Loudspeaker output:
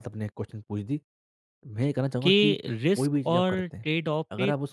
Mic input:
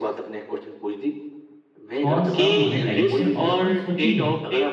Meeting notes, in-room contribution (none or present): present